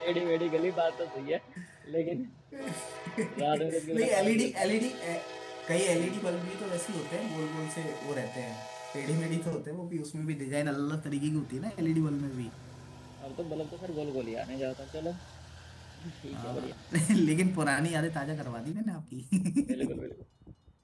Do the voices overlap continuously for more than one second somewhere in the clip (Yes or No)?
Yes